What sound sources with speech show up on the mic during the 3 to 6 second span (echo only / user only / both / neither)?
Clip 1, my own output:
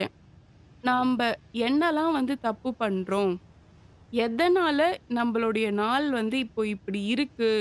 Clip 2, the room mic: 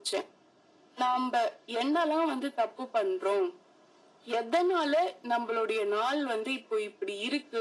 echo only